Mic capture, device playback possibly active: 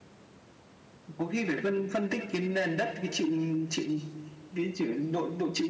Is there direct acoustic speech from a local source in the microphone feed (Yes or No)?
No